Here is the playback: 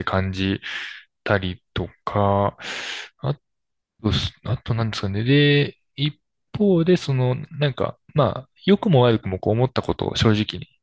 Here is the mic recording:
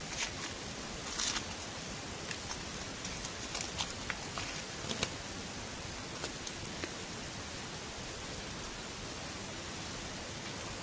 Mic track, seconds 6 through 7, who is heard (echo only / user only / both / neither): neither